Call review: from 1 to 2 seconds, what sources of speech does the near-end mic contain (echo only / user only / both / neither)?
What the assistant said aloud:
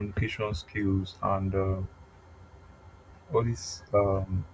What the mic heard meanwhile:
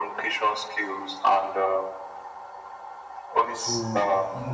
echo only